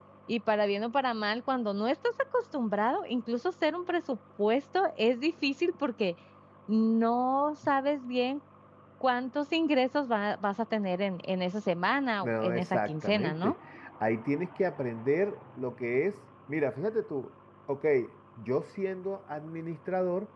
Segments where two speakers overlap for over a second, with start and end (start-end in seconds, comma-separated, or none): 12.2-13.6